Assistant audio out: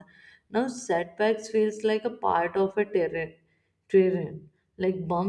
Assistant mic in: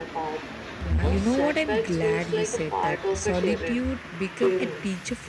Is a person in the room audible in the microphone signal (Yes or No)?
Yes